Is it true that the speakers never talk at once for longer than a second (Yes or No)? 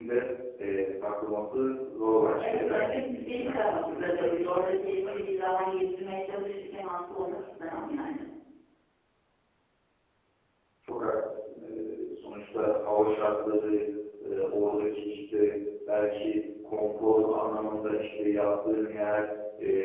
No